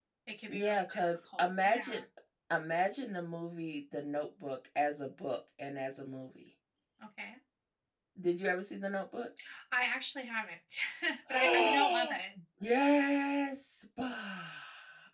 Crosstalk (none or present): present